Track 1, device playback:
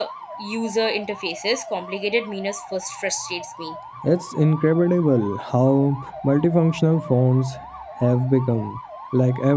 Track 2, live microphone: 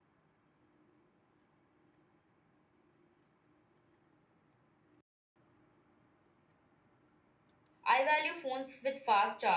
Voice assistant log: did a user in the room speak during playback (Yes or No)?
Yes